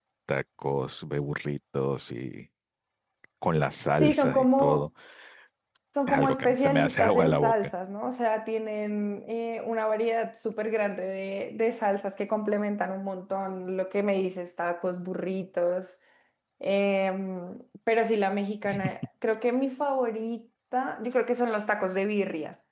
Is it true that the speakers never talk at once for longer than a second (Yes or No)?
No